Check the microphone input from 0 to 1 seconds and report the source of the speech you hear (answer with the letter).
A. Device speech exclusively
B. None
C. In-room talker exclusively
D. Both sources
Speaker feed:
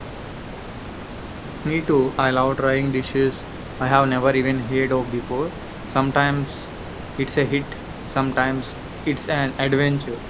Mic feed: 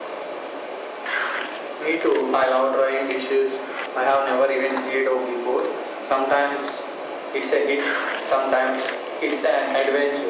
B